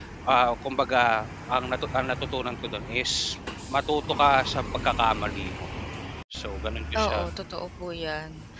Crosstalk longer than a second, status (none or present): none